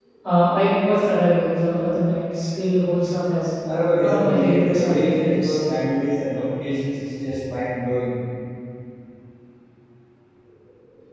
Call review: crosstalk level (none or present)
present